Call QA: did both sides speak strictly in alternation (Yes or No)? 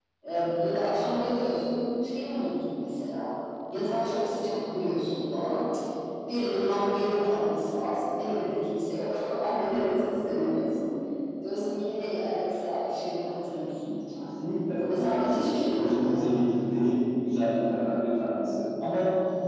No